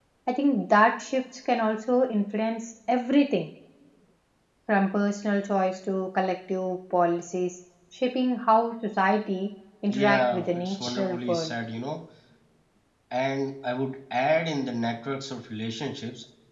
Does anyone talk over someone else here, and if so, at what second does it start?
9.9 s

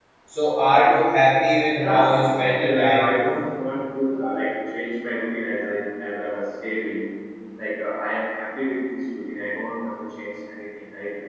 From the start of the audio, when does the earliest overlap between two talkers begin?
1.8 s

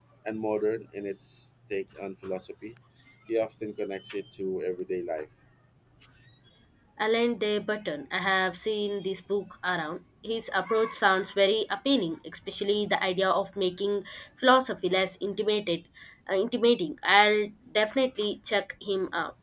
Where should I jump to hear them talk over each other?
none

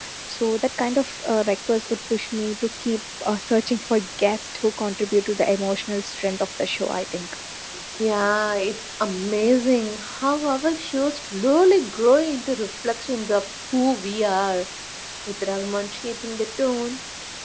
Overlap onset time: none

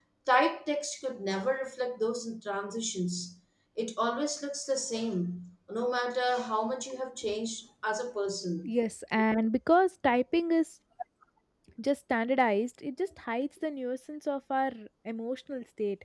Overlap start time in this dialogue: none

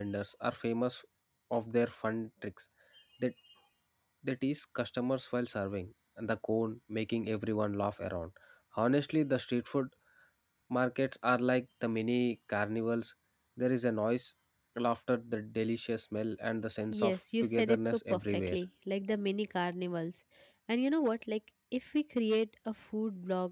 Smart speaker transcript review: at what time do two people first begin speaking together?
16.9 s

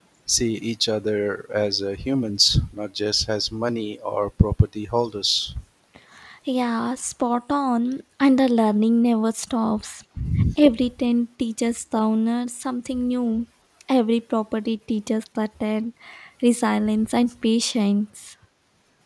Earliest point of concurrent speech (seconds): none

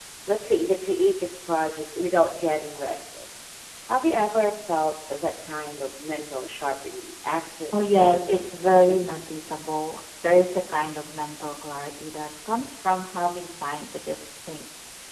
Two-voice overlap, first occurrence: 7.7 s

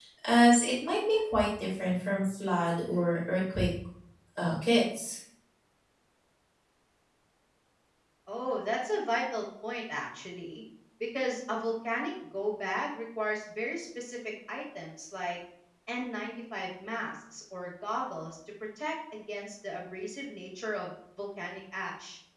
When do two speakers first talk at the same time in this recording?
none

